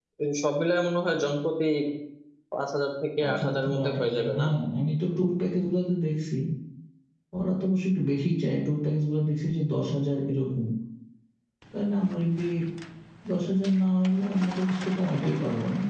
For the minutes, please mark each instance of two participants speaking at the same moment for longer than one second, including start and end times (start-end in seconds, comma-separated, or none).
3.2-4.4